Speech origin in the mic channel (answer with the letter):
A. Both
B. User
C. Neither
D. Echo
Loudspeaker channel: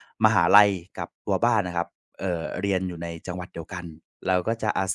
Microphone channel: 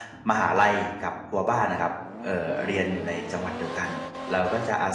D